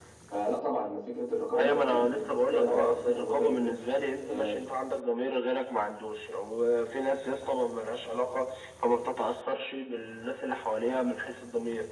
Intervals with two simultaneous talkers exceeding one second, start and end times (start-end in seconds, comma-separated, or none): 1.5-3.8